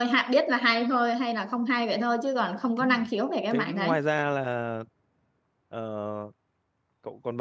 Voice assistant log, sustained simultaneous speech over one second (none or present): none